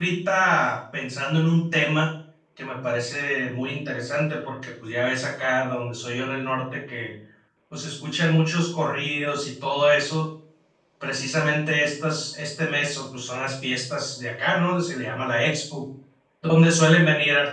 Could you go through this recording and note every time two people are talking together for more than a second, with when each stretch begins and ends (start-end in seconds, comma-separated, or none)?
none